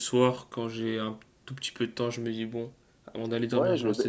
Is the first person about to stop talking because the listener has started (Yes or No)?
Yes